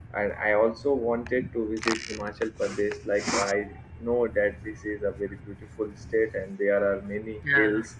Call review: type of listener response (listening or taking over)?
listening